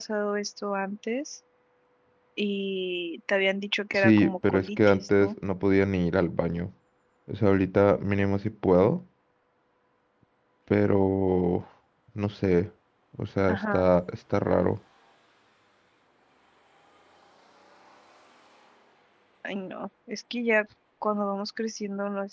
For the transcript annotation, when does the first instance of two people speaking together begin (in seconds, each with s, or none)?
3.9 s